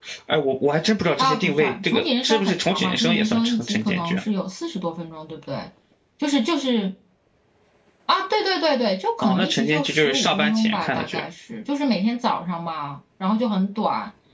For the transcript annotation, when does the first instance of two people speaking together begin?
1.2 s

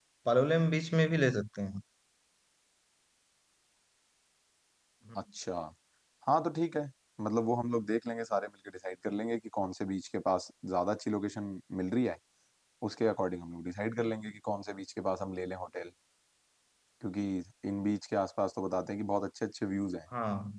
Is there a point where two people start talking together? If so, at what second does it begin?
none

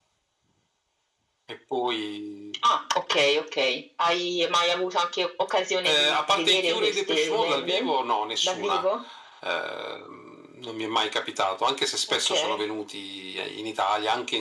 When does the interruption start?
5.8 s

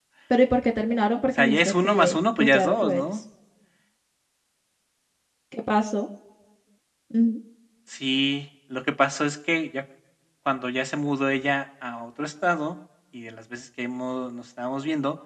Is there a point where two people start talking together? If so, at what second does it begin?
1.3 s

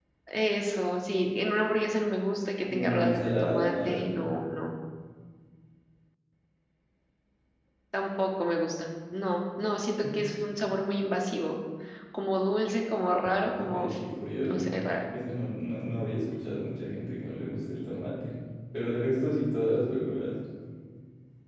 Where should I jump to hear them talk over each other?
2.7 s

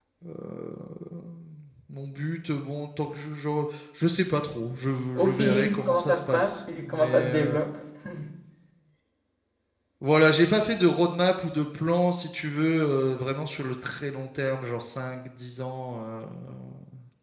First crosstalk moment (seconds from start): 5.2 s

